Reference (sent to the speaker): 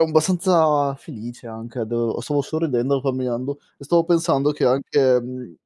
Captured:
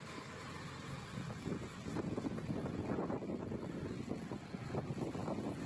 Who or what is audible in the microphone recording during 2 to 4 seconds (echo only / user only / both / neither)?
neither